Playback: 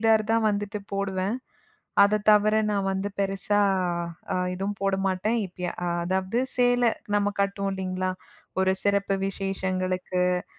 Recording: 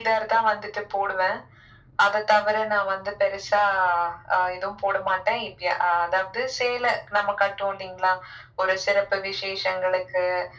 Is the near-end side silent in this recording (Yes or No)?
Yes